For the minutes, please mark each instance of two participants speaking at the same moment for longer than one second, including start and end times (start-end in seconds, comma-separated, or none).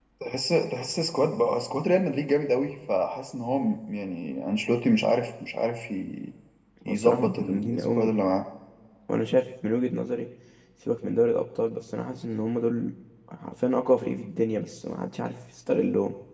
6.9-8.1